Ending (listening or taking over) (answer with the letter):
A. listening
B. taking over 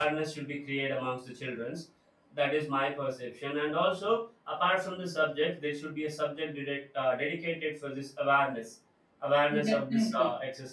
A